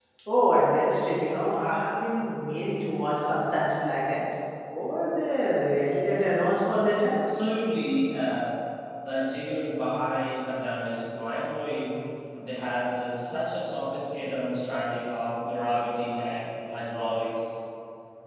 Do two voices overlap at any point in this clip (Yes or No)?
No